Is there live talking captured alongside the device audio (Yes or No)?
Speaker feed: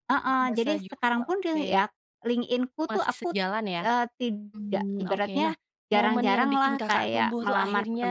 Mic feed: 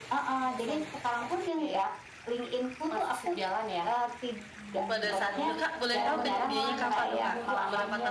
Yes